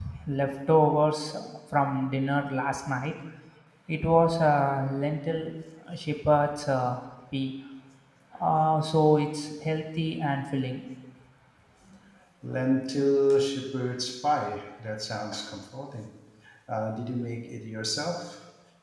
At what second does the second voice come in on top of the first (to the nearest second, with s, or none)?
none